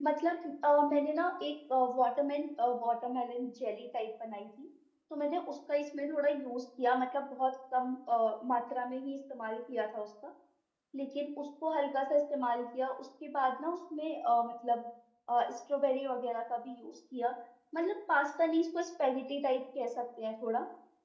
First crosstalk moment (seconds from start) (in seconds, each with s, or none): none